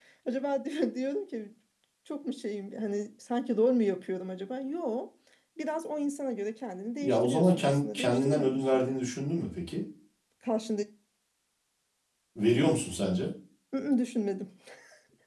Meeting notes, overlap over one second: present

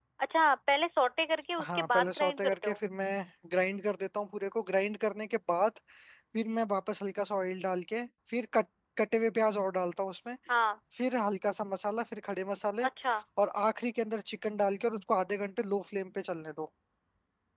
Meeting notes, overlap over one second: present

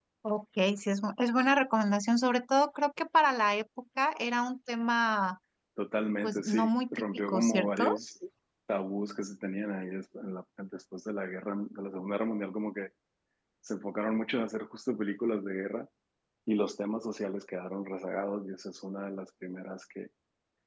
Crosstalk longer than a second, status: present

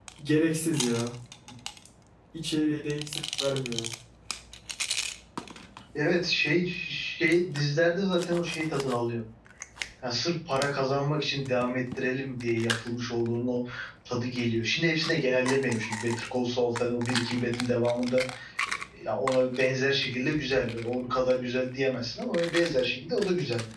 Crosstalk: none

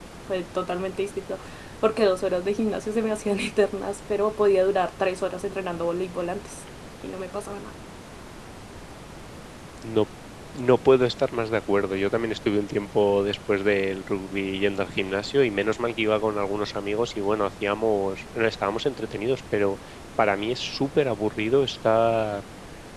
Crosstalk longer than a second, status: none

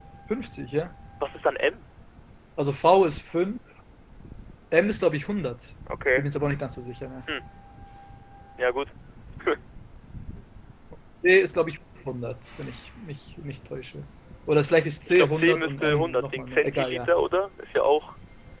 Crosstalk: present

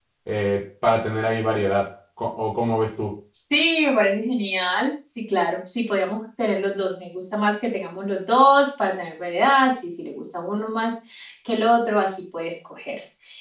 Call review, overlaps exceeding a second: none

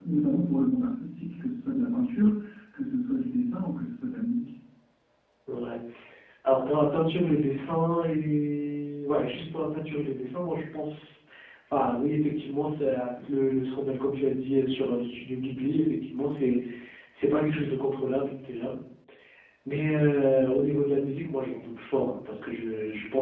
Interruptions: none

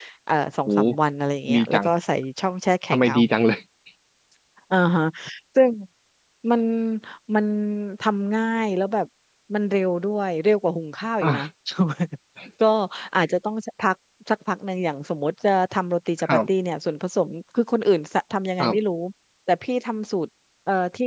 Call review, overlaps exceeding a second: none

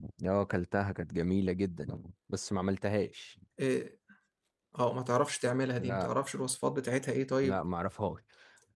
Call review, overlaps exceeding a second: none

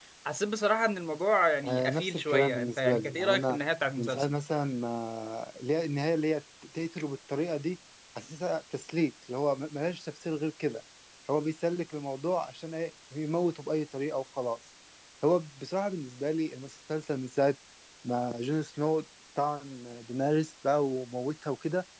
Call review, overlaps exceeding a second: present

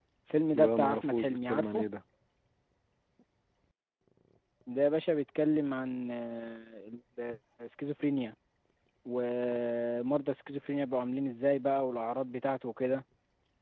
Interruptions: present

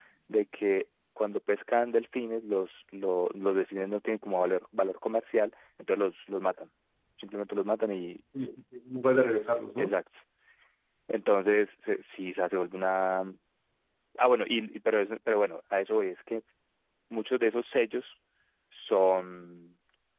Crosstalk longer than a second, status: none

